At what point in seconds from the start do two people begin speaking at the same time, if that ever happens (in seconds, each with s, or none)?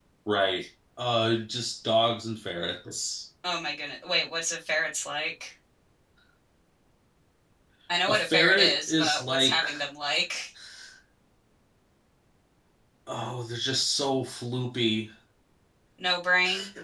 8.1 s